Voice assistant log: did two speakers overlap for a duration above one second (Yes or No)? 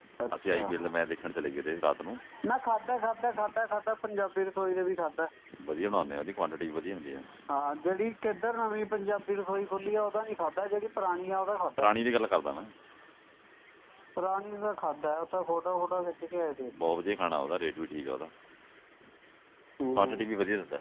No